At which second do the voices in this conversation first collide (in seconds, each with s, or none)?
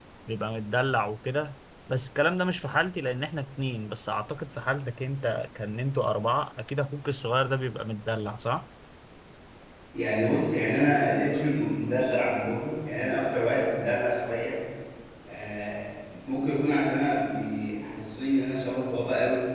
none